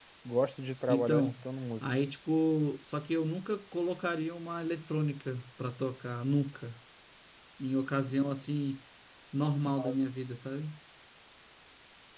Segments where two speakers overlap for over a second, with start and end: none

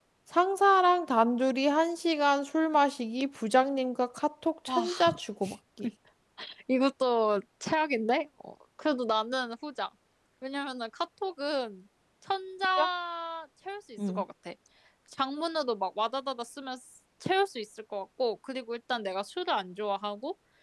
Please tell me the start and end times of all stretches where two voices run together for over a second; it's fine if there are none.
none

